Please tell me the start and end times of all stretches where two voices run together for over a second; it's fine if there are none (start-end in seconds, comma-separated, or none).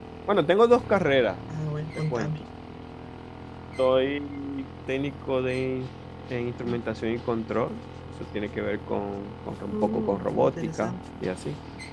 9.7-11.0